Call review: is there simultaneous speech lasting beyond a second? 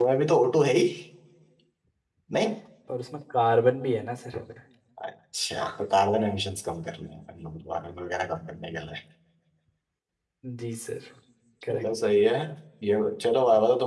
No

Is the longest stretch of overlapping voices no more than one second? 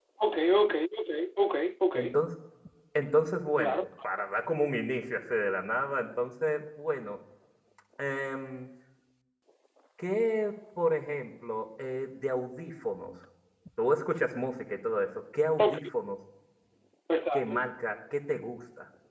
Yes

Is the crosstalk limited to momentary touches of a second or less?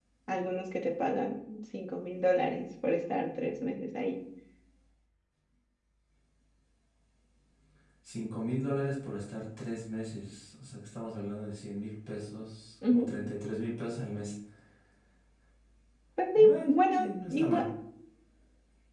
No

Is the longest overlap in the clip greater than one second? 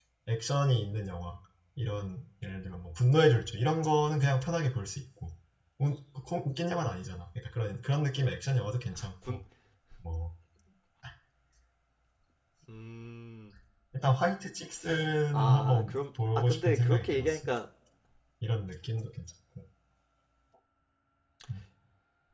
Yes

